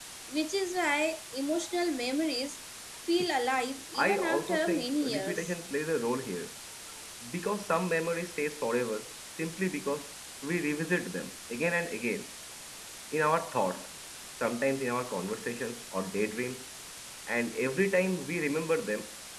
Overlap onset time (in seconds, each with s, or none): 3.9 s